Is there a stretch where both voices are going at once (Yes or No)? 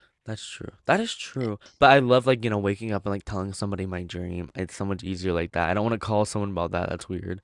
No